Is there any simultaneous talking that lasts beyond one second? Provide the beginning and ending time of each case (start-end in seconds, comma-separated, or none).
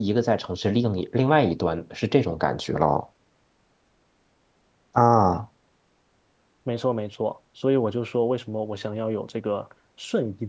none